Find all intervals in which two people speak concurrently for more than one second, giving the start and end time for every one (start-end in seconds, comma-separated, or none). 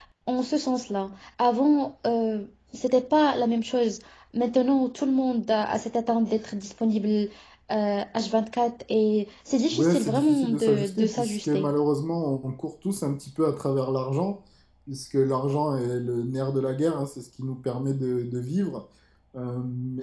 9.7-11.7